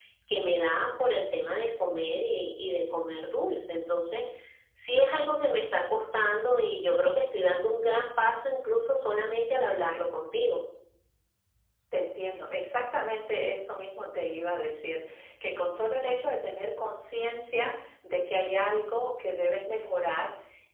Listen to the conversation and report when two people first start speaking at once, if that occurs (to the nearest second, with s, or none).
none